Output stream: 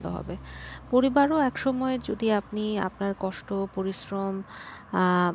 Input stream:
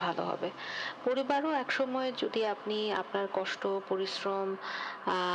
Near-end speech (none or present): none